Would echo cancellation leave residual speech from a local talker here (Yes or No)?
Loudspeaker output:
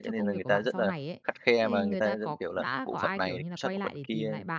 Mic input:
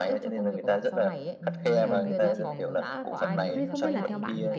Yes